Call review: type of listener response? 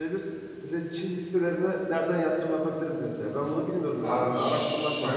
taking over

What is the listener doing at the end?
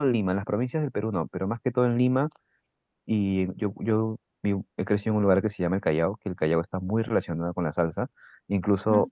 listening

